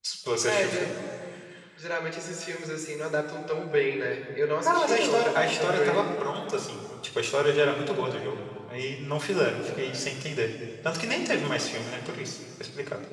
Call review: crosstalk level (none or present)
present